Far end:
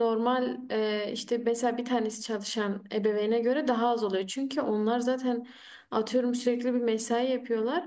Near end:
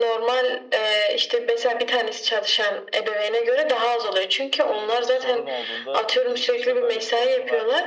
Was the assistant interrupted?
Yes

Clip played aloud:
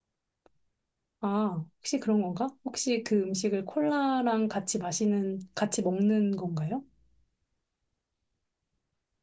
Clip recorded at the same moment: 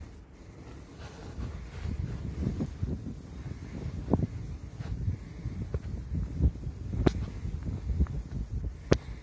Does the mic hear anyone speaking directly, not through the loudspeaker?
No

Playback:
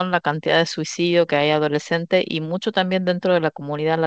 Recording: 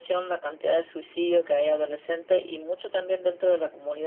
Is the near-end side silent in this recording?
Yes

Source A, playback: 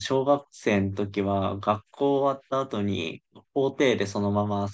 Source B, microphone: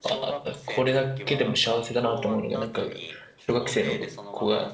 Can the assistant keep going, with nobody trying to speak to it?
No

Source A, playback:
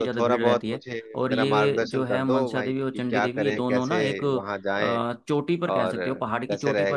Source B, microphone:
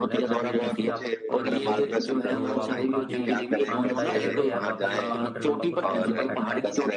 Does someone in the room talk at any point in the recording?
Yes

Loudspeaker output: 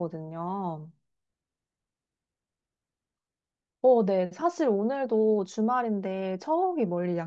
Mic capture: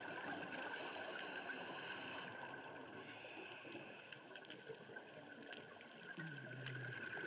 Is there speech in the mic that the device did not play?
No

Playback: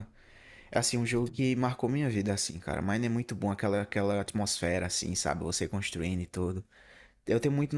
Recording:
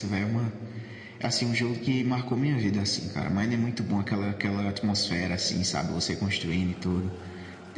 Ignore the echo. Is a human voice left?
No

